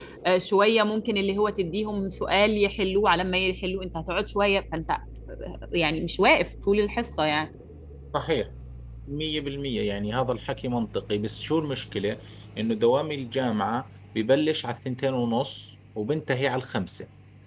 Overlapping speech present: No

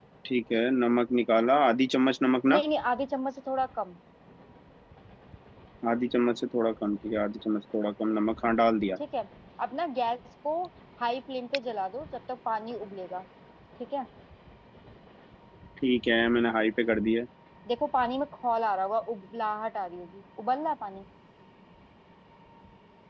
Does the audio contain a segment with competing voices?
No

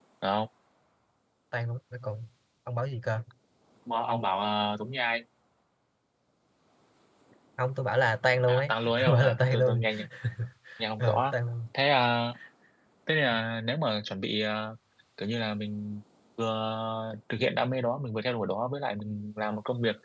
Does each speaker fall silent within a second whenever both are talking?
No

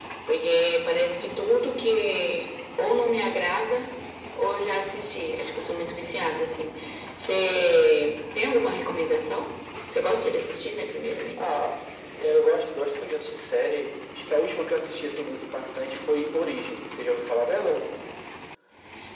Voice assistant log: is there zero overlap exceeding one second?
Yes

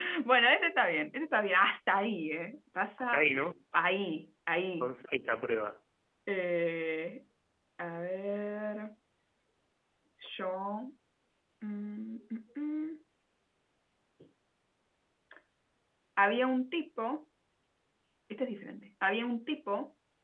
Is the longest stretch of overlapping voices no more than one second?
Yes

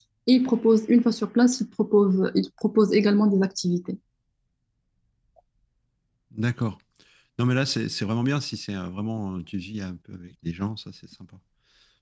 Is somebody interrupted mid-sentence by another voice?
No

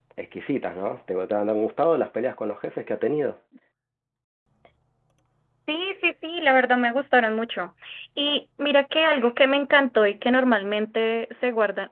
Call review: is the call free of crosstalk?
Yes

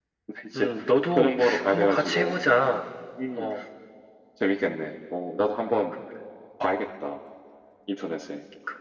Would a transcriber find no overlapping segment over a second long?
No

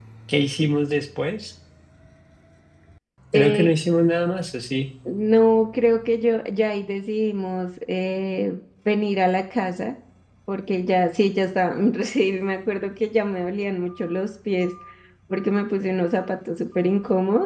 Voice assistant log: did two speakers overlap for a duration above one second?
No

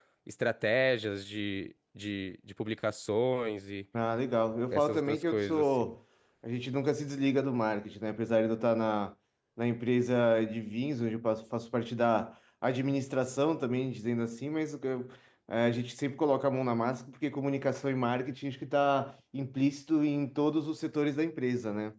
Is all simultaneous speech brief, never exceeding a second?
No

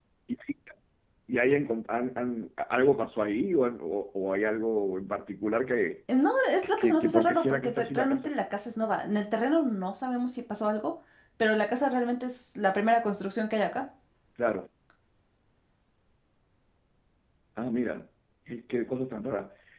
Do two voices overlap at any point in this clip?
Yes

